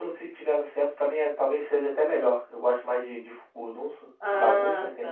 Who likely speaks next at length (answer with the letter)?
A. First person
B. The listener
B